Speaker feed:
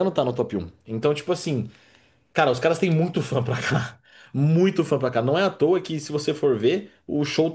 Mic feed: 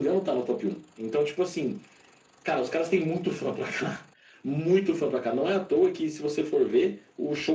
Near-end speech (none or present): none